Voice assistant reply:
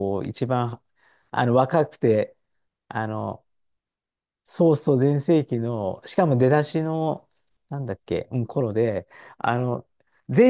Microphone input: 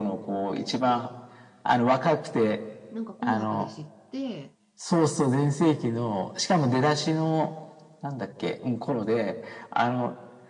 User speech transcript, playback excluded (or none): なんか紅白で知って、